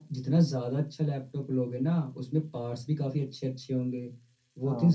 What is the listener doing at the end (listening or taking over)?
listening